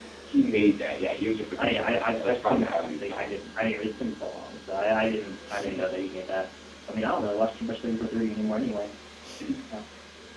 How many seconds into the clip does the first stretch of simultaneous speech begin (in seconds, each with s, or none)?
1.5 s